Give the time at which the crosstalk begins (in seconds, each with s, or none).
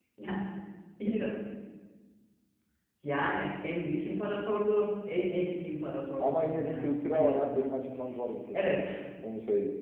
6.2 s